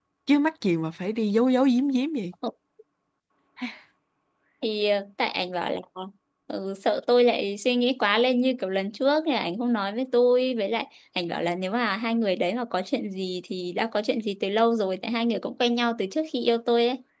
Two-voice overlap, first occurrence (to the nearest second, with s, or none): none